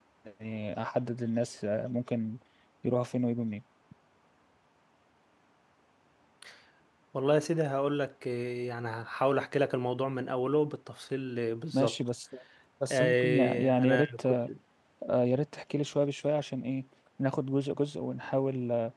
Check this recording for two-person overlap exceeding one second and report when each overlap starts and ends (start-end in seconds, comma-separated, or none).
12.8-14.3